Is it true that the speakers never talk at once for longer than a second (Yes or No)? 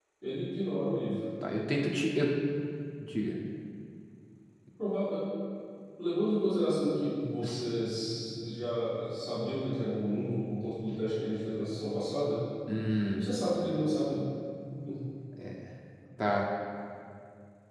Yes